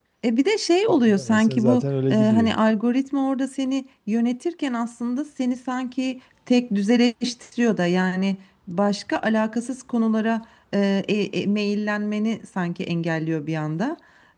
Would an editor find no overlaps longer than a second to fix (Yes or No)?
No